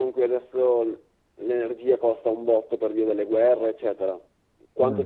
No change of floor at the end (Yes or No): Yes